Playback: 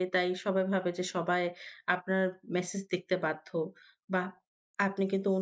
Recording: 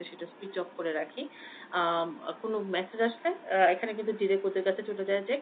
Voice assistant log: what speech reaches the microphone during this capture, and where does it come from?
user only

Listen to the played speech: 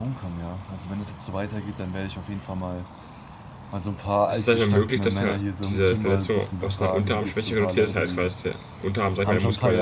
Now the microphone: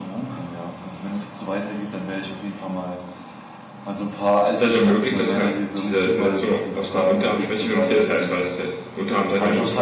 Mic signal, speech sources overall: echo only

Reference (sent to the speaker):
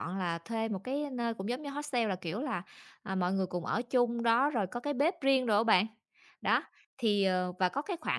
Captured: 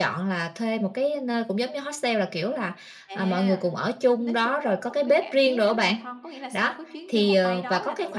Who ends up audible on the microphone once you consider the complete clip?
both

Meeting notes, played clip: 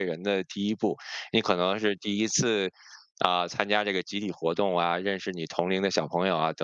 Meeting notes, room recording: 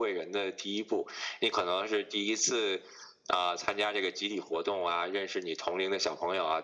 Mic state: echo only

